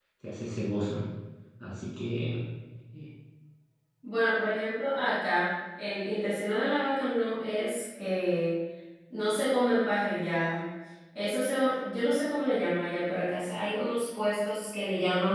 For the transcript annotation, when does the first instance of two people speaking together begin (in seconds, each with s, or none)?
none